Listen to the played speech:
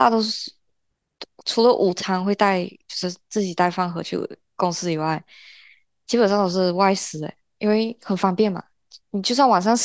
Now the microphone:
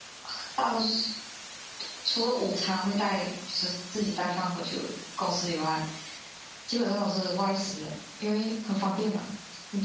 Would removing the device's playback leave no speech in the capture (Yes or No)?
Yes